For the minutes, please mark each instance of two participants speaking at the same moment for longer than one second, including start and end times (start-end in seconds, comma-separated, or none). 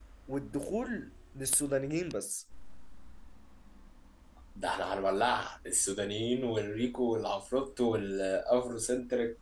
none